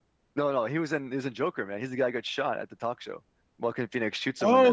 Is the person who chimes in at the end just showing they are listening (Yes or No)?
No